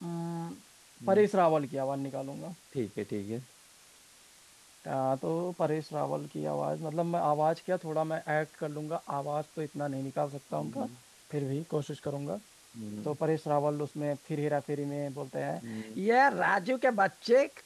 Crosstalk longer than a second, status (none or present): none